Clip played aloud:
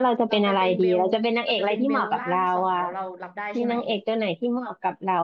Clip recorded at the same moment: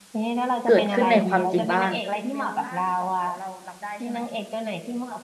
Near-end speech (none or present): present